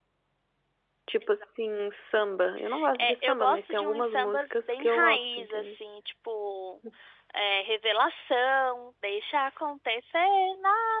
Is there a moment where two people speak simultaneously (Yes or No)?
Yes